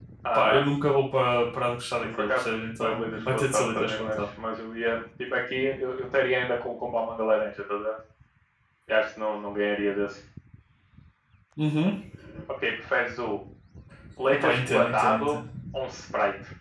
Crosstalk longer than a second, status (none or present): present